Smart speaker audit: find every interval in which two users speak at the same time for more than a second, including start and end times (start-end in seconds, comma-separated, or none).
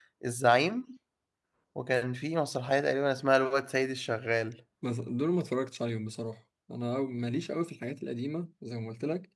none